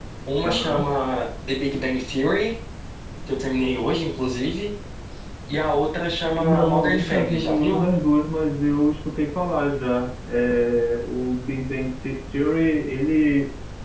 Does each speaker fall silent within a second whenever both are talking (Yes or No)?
No